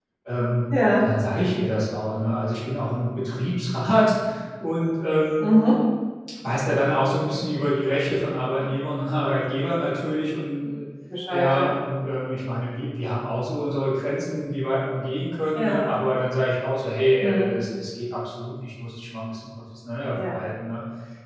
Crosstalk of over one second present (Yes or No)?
No